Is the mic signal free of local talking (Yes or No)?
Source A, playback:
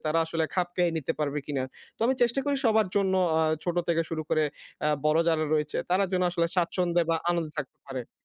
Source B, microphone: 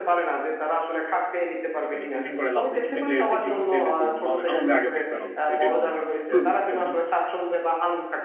No